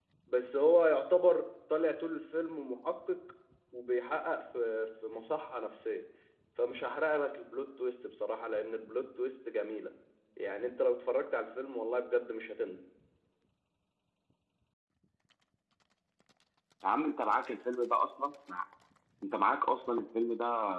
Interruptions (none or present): none